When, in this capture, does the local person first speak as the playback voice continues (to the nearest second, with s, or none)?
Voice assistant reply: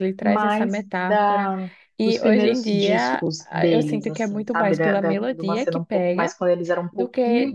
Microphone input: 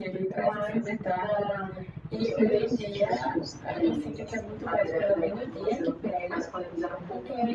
none